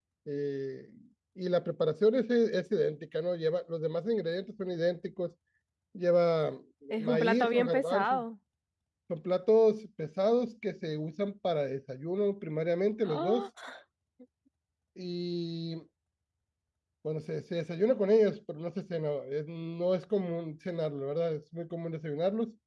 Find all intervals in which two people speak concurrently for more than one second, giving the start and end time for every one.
7.0-8.2

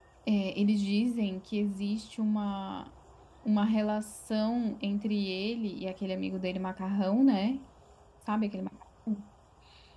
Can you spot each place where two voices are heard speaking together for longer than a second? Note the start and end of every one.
none

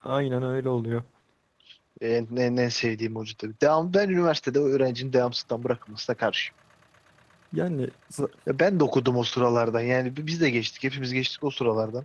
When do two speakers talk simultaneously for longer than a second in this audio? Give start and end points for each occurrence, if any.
none

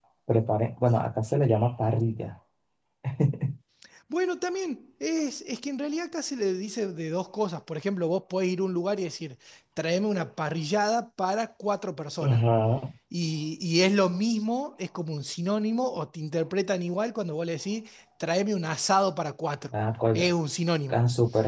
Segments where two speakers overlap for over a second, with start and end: none

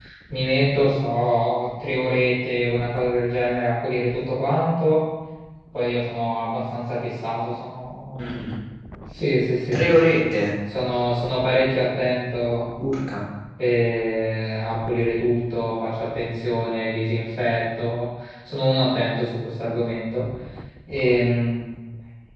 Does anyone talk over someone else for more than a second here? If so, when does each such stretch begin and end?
none

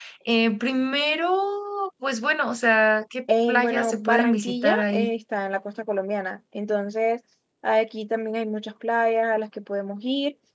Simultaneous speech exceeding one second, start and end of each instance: 3.5-5.1

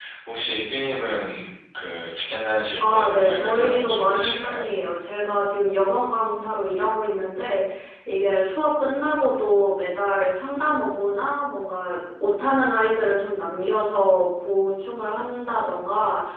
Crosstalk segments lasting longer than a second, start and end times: 2.8-4.7

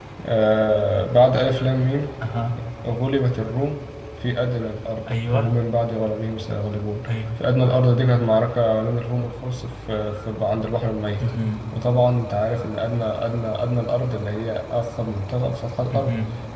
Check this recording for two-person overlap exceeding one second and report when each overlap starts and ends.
none

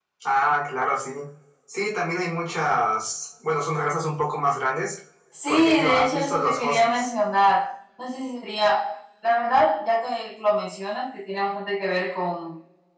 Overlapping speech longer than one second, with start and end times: 5.5-7.1

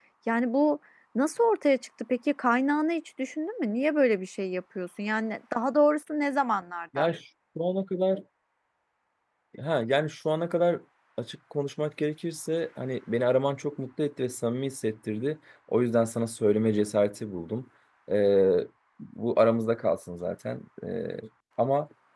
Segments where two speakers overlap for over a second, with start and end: none

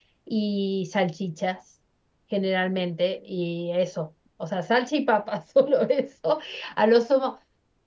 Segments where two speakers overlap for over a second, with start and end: none

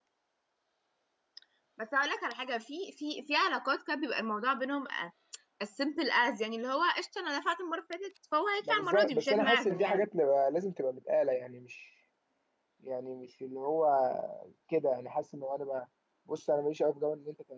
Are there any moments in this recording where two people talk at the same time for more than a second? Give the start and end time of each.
8.7-10.1

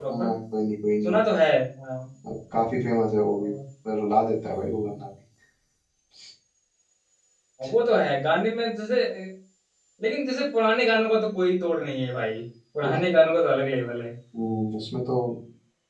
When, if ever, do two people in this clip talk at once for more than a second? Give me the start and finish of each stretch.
none

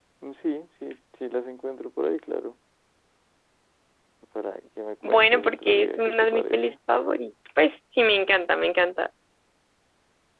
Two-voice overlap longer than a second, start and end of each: 5.1-6.7

